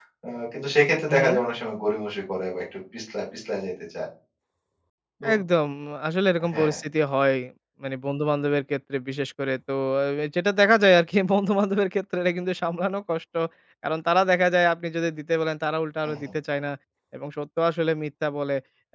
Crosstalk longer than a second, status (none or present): none